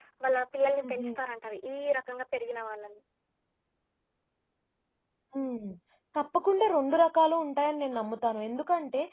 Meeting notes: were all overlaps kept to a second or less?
Yes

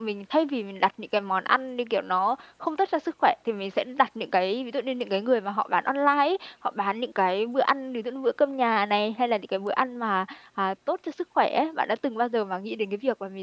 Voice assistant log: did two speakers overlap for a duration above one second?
No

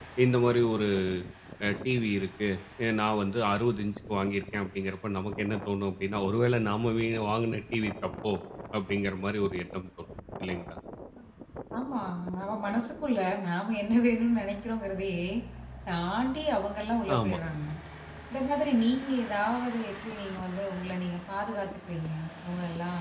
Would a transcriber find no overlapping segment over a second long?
Yes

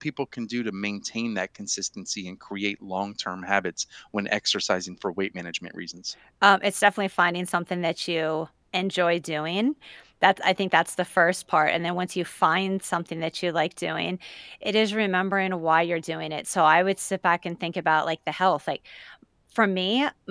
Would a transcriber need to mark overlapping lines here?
No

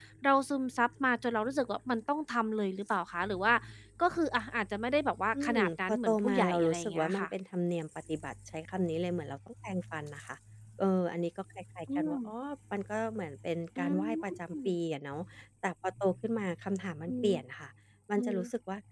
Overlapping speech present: Yes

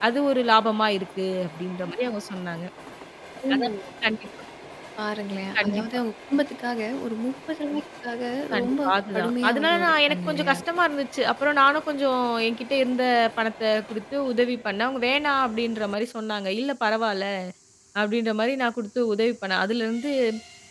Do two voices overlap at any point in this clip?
Yes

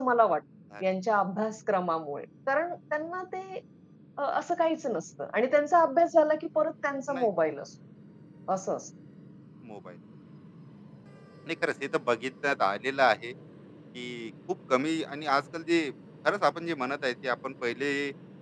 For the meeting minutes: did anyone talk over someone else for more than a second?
No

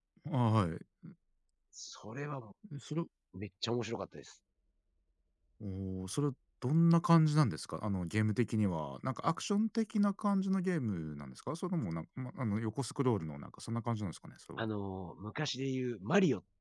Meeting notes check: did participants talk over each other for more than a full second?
No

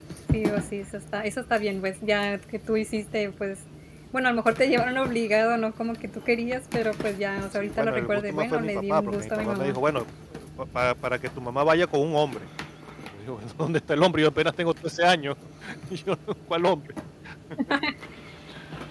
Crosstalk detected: Yes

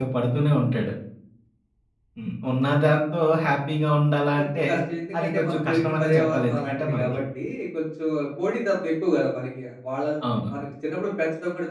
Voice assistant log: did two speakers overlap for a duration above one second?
Yes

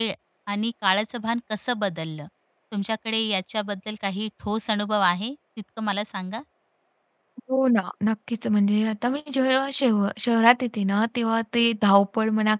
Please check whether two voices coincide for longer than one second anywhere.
No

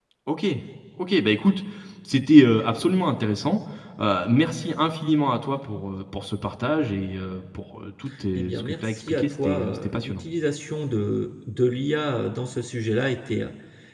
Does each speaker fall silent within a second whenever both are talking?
No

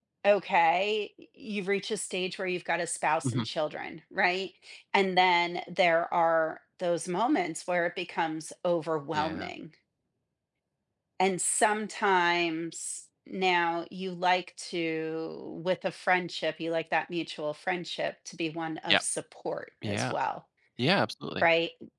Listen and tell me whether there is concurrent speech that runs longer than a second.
No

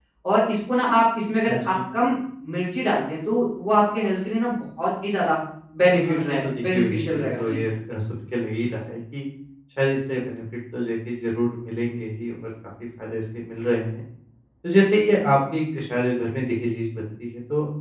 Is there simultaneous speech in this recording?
Yes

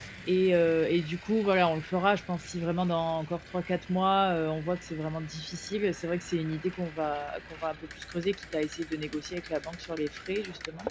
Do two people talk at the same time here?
No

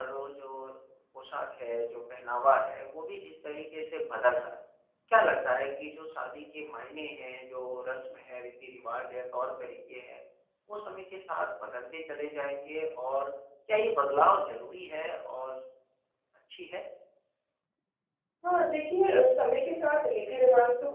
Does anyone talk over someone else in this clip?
No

